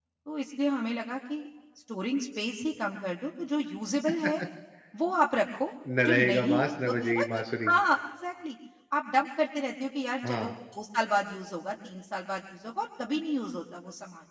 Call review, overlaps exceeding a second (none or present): present